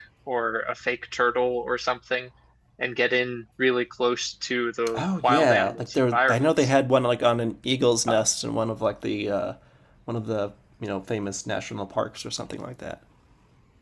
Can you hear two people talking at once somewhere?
Yes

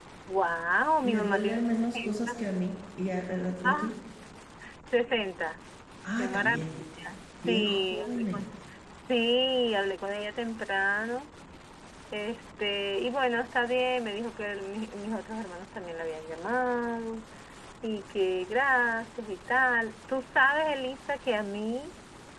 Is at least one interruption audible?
Yes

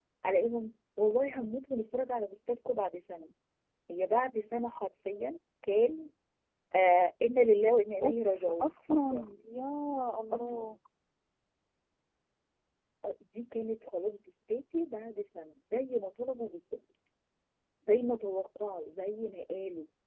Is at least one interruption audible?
Yes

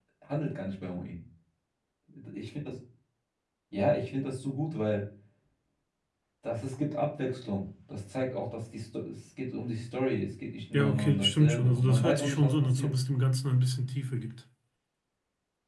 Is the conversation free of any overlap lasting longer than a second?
No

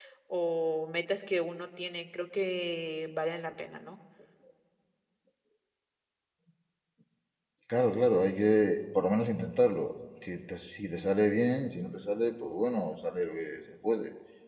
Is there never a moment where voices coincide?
Yes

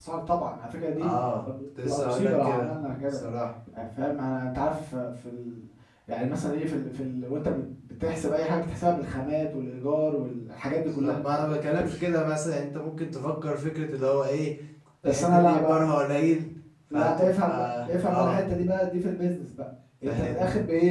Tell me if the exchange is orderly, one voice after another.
No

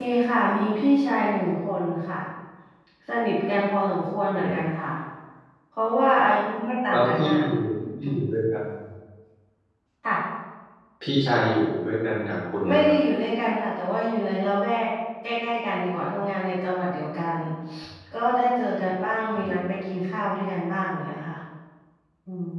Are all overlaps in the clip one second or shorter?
Yes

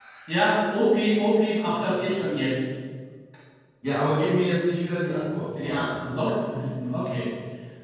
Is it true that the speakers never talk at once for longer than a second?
Yes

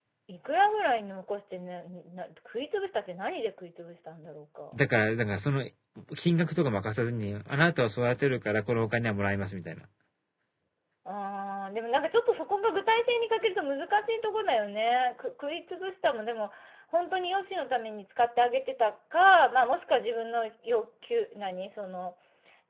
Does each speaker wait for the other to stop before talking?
Yes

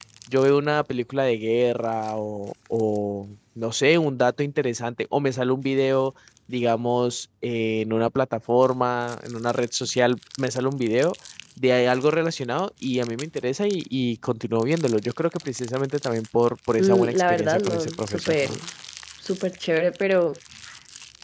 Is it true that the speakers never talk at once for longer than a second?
No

